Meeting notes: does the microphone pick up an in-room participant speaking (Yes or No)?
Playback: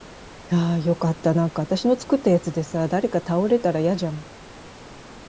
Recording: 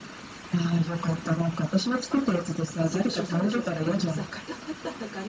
Yes